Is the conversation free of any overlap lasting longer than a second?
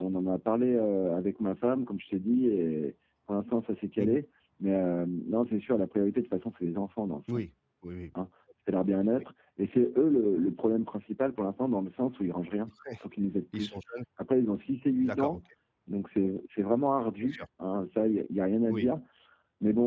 Yes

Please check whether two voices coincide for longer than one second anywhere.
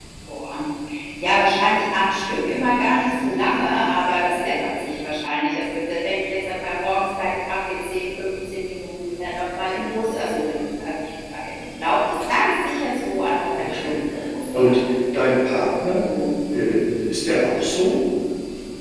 No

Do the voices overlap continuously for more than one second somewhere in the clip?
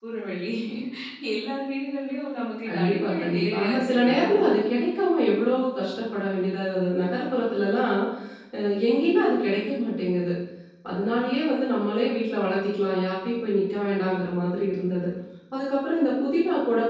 Yes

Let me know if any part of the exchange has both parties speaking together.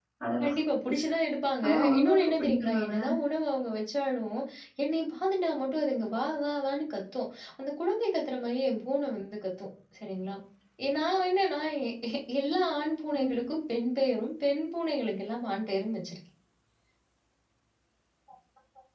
Yes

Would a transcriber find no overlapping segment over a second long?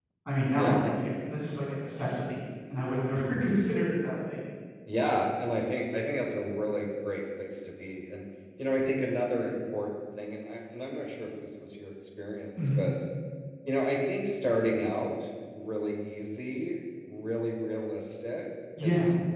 Yes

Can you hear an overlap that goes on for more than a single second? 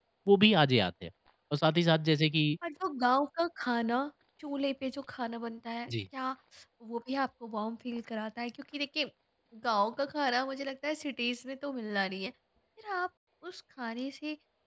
No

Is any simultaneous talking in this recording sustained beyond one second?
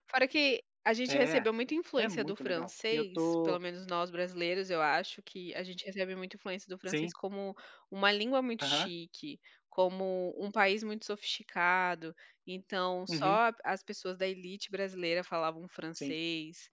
Yes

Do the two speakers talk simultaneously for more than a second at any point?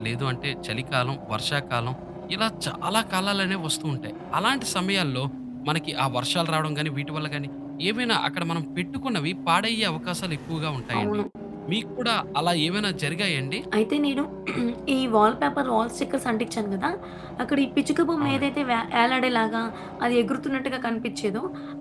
No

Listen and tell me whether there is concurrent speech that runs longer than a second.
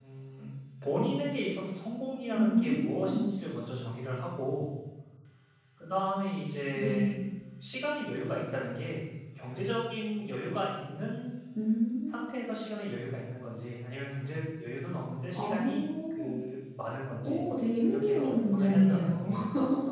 Yes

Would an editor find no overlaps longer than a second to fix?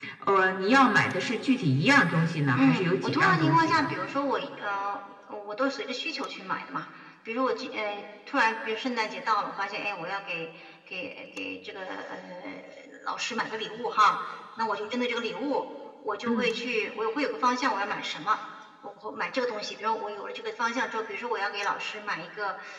No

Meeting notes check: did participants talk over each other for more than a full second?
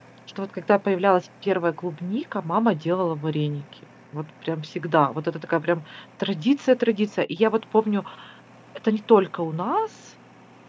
No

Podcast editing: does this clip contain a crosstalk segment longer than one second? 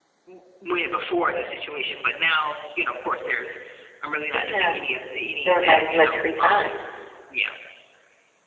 Yes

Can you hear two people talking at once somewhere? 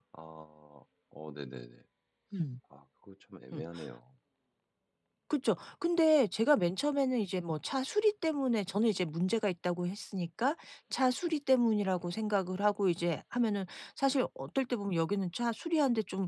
No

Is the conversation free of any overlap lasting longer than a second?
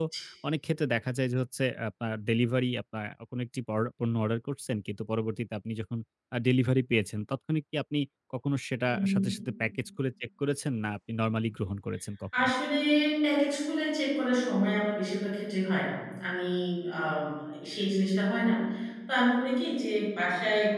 Yes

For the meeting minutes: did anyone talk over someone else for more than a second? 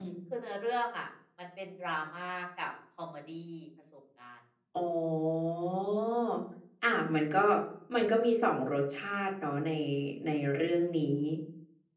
No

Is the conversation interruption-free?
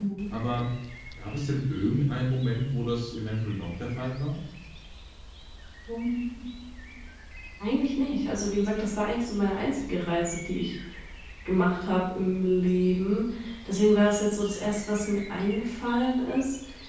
Yes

